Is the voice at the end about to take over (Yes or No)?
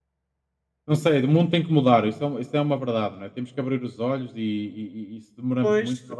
Yes